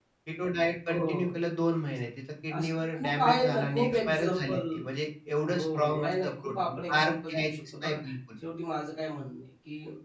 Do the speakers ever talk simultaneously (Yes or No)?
Yes